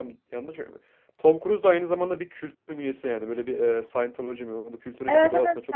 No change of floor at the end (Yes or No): No